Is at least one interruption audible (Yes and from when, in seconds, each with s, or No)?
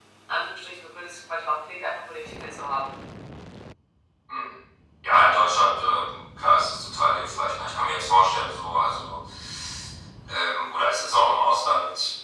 No